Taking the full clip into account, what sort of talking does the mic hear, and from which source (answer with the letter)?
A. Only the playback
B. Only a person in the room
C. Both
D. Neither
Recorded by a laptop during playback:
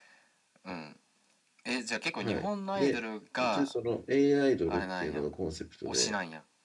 C